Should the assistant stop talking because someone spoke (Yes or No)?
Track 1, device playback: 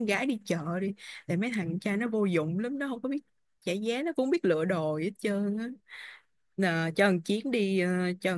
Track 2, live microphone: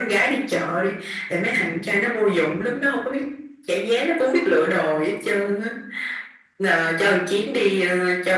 No